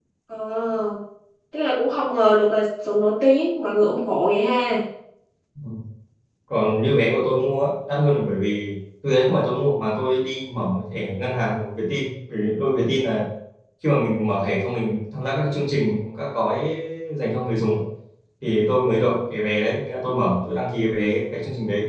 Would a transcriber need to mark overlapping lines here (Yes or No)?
No